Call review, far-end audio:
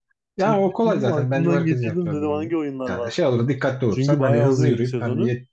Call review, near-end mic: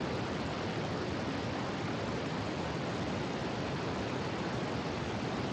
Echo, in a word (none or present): none